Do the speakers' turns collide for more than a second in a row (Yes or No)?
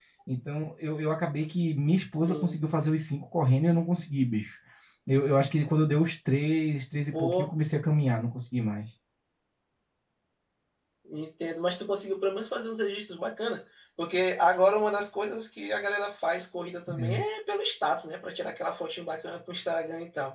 No